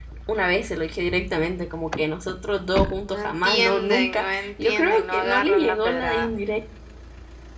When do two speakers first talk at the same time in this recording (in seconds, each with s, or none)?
3.1 s